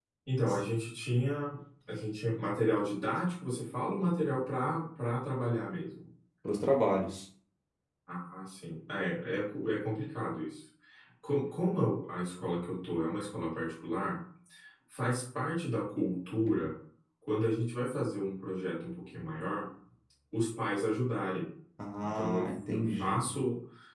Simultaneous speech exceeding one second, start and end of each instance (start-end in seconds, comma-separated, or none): 22.0-23.3